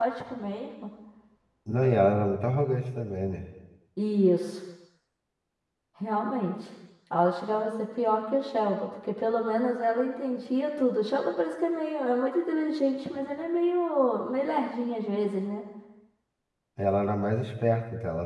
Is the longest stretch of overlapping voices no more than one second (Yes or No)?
Yes